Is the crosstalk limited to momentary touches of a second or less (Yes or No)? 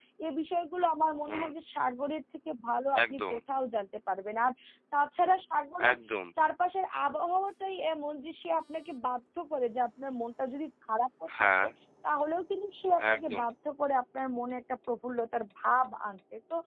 Yes